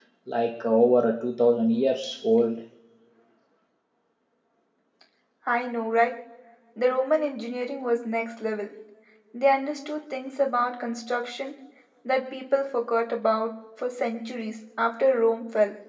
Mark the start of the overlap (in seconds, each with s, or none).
none